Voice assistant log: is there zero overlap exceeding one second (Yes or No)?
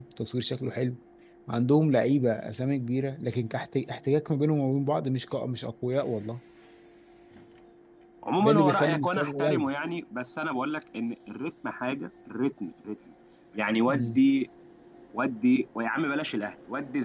No